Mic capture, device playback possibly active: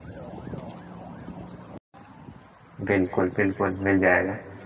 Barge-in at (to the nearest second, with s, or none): 3 s